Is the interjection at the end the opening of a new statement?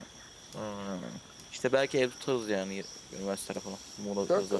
Yes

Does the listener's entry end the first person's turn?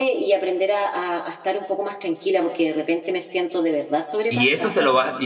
Yes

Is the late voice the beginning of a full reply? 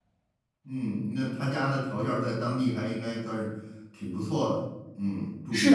Yes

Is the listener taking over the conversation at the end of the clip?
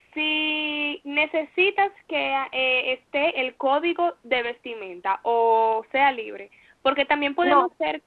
No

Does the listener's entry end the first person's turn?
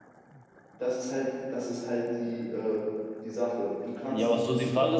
Yes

